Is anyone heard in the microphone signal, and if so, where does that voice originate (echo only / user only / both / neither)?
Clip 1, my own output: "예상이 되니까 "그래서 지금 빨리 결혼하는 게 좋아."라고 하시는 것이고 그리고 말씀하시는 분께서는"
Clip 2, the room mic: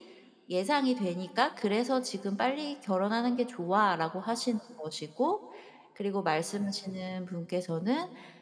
echo only